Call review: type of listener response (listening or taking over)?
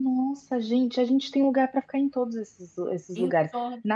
listening